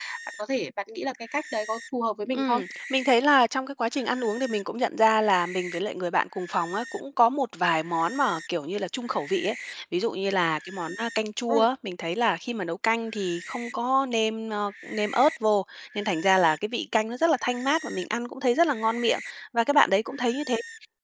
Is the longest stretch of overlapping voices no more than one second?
Yes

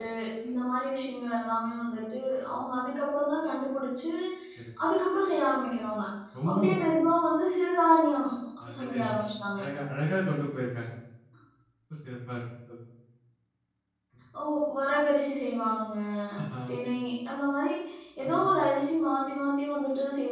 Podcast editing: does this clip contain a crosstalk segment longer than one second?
No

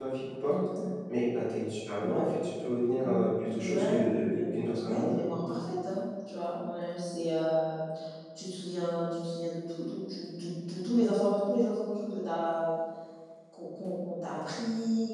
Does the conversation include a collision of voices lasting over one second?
Yes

